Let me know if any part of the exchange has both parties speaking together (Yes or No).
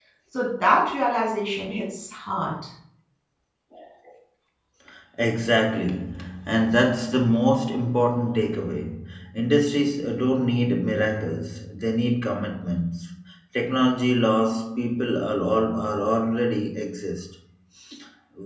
No